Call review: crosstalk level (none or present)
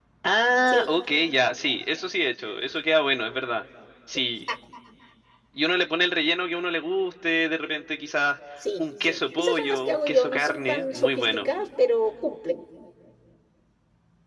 present